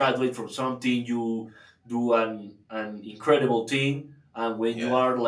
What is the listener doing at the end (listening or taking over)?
listening